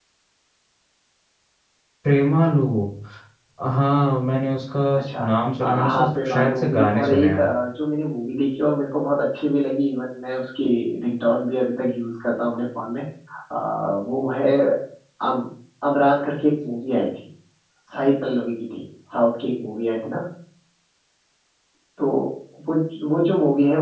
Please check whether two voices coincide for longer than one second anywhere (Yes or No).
Yes